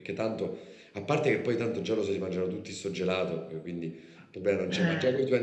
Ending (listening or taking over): listening